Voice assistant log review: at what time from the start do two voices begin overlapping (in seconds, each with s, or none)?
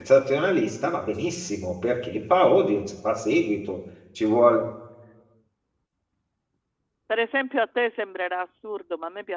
none